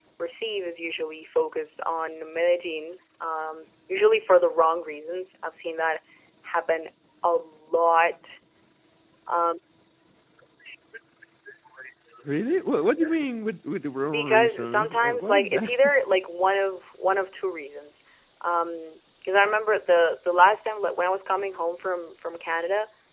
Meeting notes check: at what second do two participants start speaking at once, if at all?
14 s

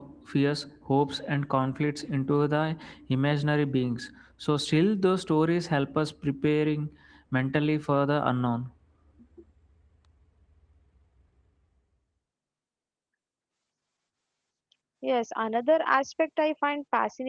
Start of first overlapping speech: none

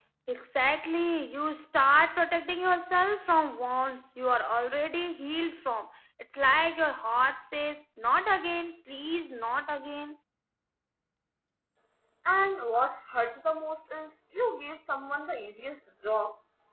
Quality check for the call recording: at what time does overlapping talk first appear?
none

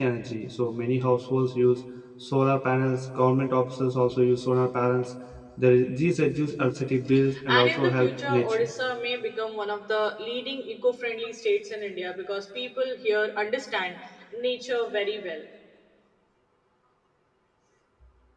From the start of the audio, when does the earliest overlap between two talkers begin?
7 s

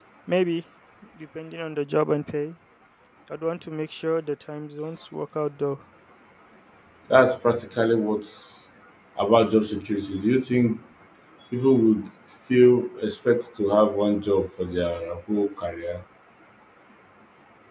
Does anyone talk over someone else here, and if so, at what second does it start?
none

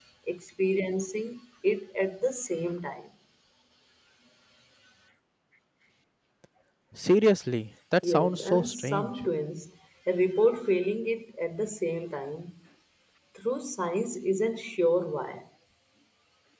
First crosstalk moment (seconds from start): 8 s

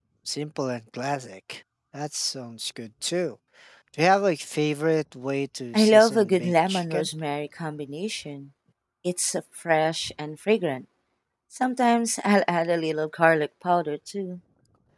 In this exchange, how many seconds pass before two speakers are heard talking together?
6 s

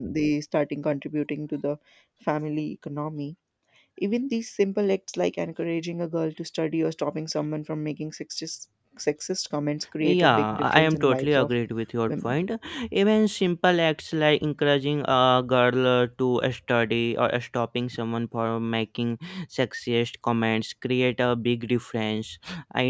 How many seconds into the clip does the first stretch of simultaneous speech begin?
10 s

